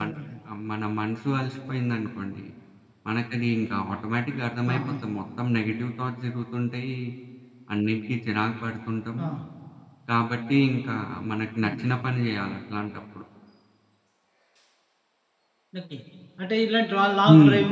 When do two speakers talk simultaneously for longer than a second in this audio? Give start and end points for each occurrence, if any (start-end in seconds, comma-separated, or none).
none